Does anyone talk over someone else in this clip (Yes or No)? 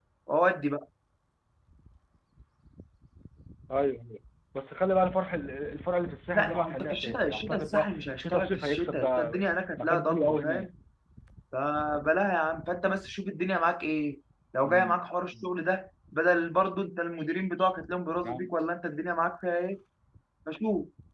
Yes